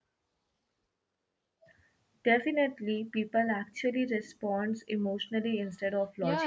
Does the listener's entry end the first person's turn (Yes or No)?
Yes